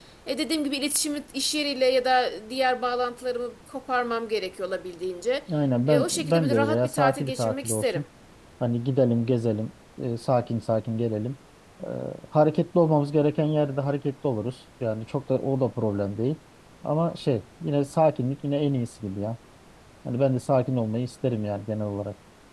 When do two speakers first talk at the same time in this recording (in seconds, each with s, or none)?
5.9 s